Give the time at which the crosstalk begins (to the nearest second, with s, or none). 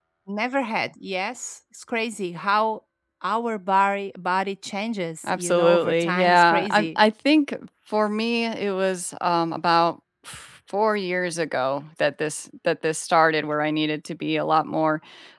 5 s